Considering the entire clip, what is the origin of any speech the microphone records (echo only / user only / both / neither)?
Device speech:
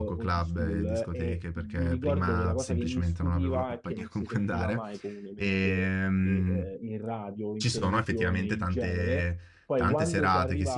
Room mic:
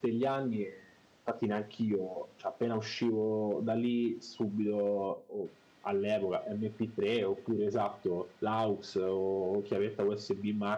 user only